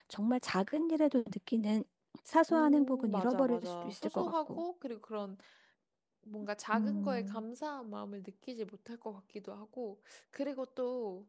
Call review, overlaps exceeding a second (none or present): present